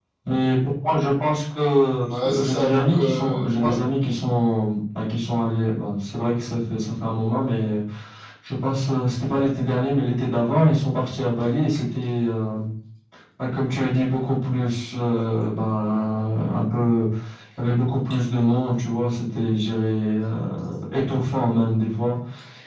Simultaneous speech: Yes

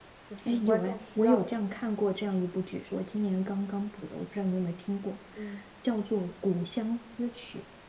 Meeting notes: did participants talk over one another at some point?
Yes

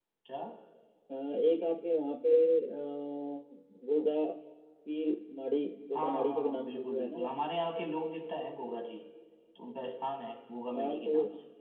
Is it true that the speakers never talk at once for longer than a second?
No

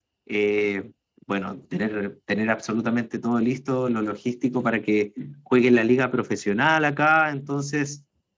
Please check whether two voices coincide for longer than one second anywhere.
No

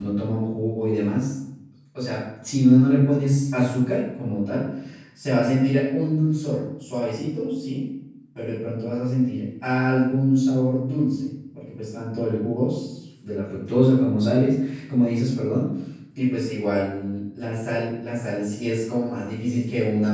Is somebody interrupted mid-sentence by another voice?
No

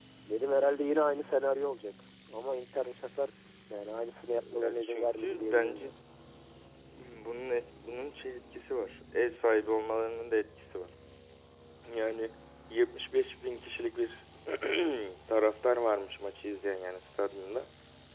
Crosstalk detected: Yes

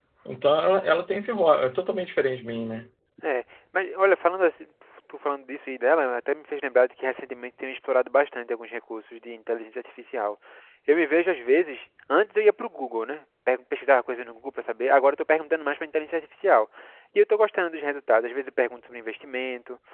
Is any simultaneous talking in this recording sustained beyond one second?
No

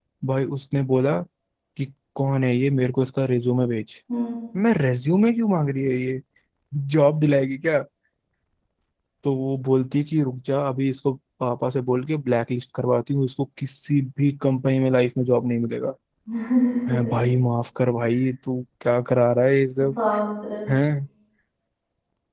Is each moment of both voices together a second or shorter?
Yes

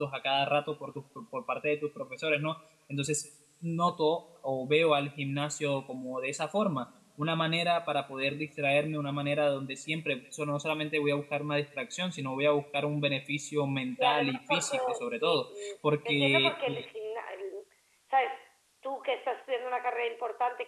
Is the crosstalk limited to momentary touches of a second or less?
No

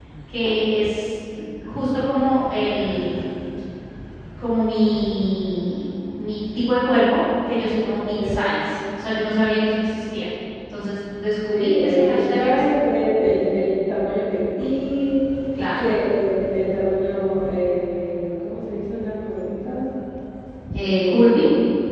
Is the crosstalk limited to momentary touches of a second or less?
No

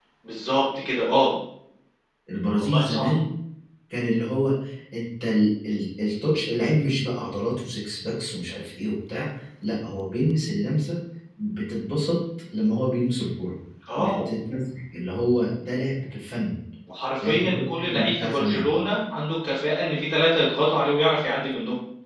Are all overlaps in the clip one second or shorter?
No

